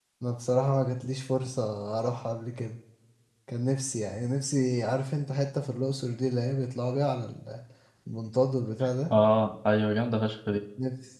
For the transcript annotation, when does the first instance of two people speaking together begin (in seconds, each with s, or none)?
none